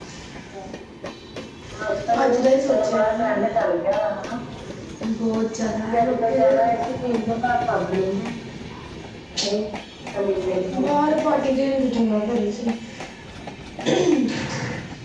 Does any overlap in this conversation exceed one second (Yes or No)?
Yes